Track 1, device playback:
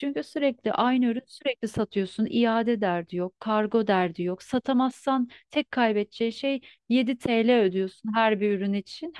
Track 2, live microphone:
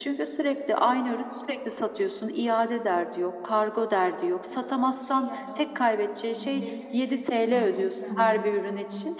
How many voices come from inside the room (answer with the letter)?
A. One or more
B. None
A